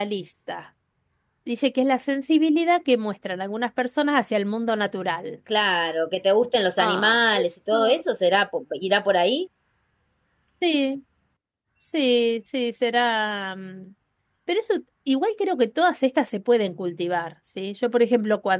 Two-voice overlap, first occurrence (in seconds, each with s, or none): 6.8 s